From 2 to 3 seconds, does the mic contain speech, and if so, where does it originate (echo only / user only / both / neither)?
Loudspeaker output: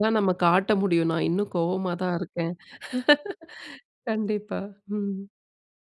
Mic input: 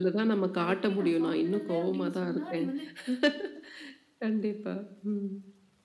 both